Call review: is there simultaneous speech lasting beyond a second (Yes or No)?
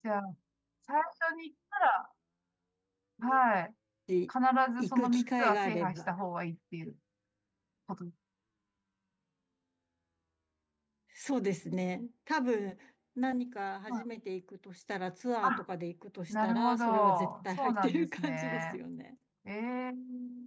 Yes